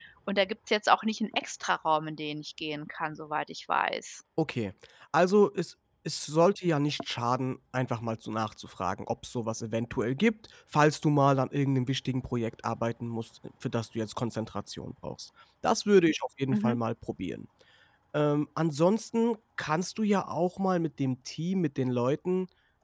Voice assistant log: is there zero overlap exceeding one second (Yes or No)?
Yes